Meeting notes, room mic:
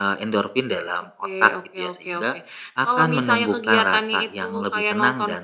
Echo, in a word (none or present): present